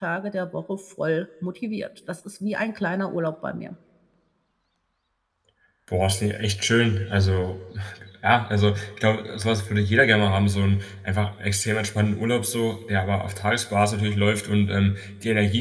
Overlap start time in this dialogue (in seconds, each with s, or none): none